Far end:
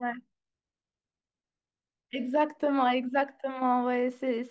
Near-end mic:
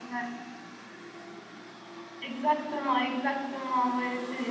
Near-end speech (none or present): none